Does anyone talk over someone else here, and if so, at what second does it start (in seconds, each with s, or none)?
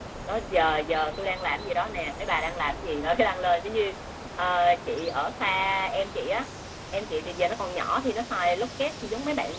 none